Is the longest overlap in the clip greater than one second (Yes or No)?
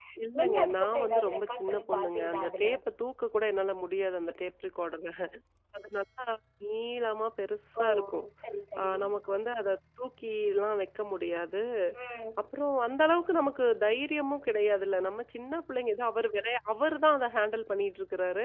Yes